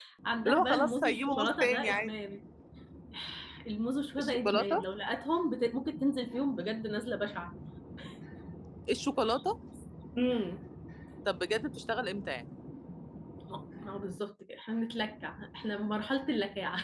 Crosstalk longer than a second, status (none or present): present